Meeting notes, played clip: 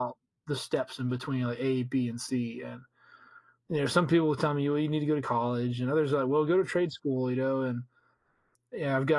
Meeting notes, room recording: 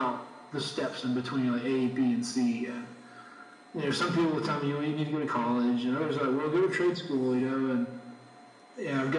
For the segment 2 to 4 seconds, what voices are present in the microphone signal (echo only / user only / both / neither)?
echo only